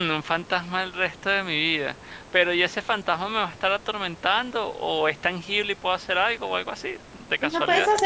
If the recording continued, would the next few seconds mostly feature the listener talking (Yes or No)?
Yes